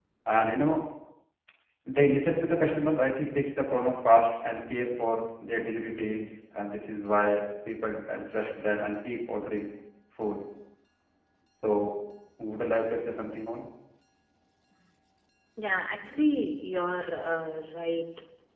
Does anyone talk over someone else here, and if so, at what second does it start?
none

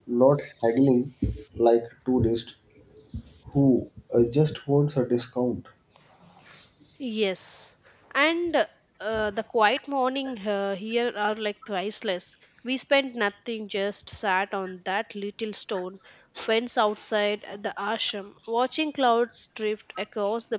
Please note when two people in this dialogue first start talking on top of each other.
none

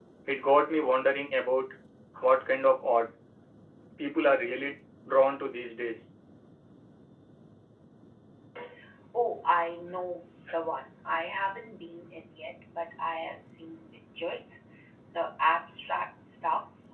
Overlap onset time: none

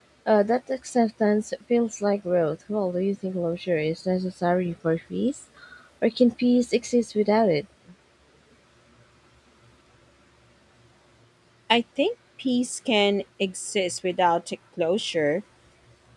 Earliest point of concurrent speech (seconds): none

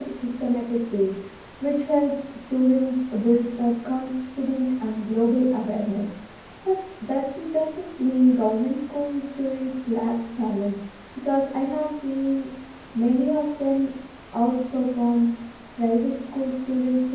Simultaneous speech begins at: none

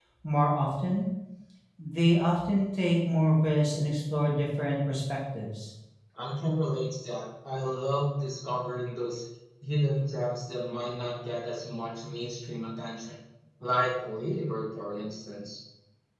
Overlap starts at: none

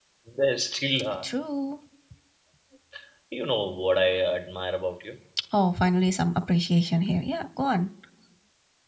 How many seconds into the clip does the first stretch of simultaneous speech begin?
none

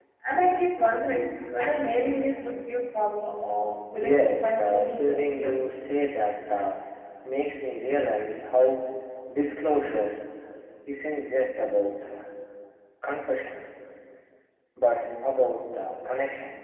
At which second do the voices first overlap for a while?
4.0 s

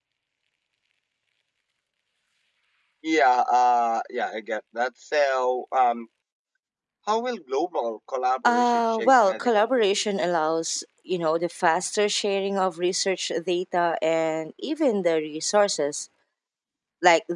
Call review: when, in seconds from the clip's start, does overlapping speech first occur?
8.4 s

